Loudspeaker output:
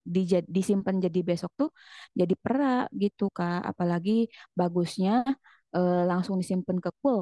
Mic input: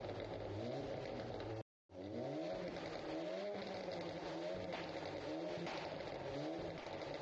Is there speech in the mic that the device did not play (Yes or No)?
No